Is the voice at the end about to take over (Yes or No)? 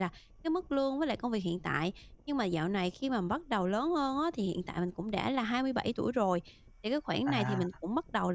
No